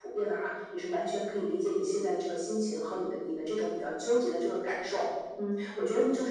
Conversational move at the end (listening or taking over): listening